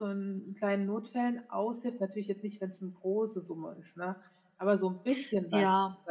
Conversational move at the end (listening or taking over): taking over